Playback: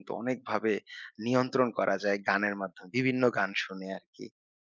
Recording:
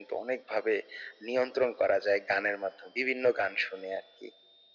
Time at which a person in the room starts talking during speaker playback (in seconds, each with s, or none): none